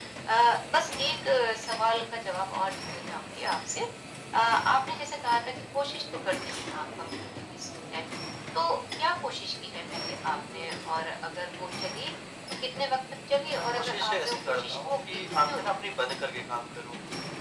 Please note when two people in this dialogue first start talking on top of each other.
13.6 s

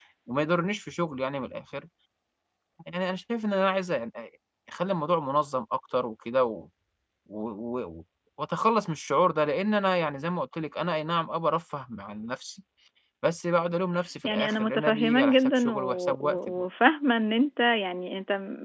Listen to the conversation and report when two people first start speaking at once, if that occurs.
14.2 s

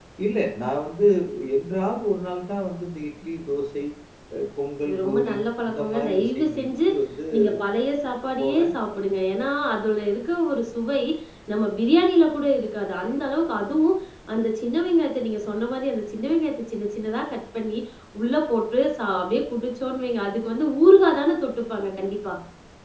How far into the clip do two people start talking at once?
4.8 s

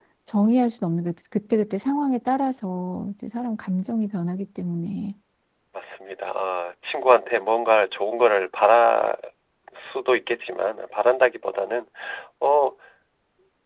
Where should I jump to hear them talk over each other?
none

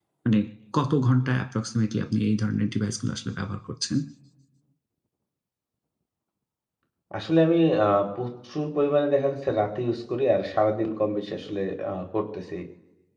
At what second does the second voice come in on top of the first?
none

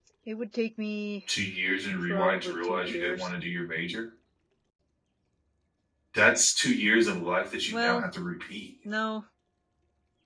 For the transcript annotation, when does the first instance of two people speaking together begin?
2.0 s

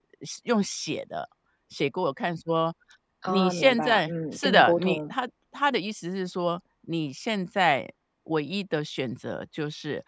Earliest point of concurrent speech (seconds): 3.3 s

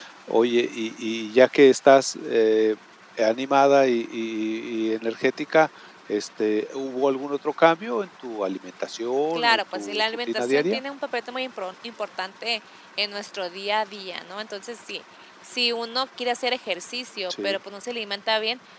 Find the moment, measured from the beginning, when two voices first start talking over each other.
9.3 s

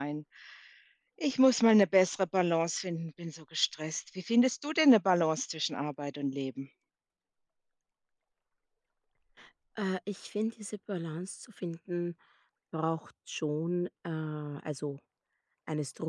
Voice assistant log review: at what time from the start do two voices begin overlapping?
none

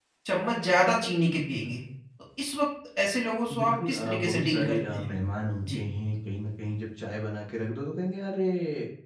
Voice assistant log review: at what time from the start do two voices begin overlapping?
3.5 s

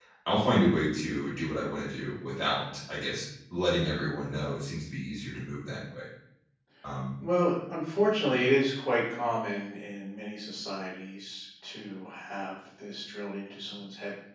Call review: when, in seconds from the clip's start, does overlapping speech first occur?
none

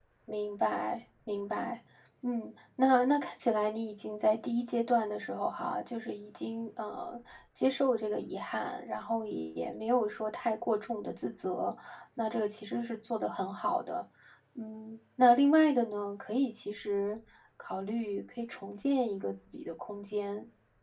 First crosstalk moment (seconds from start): none

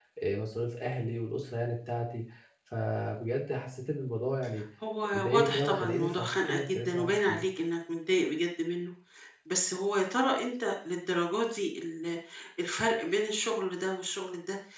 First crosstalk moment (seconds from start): 5.3 s

